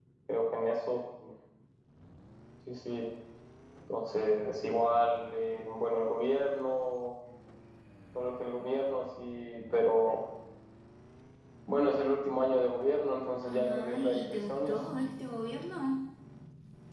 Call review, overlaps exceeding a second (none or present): present